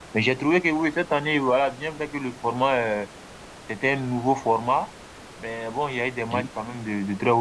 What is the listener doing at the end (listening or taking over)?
listening